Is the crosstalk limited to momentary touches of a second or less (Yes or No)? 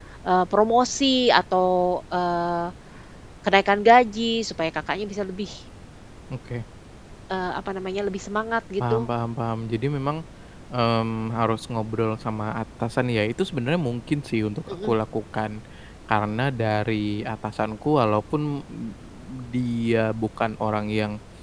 Yes